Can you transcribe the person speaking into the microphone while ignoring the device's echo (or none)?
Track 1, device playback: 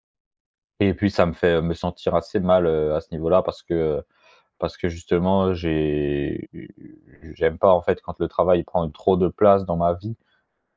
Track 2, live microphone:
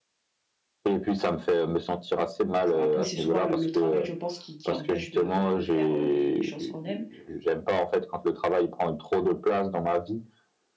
enfin, après, c'est souvent le le travail je pense qui qui empêche de de faire, heu, les les choses qu'on aime